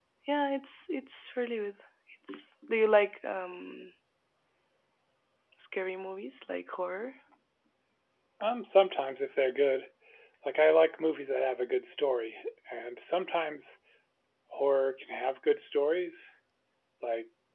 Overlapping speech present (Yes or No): No